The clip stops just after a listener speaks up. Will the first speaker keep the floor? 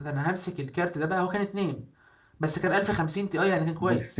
No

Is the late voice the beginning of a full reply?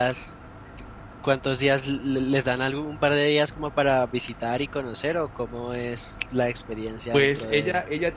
Yes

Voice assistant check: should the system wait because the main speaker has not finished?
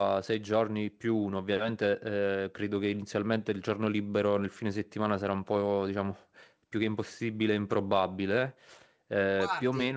Yes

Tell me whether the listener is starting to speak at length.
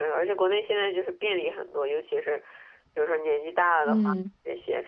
No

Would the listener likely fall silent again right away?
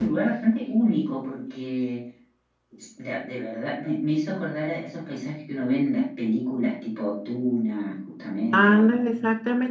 No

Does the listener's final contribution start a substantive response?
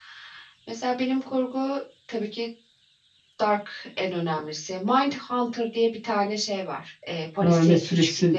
Yes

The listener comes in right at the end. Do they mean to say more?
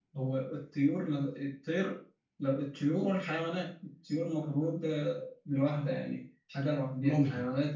Yes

